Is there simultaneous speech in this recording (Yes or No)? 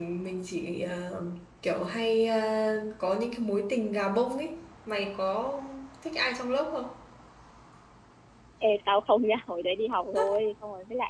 No